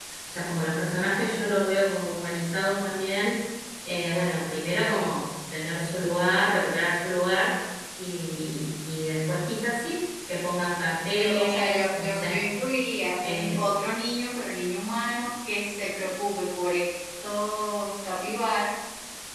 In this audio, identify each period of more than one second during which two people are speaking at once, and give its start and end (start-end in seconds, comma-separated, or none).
11.2-12.6